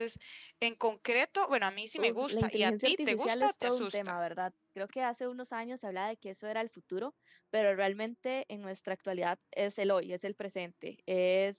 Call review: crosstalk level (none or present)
present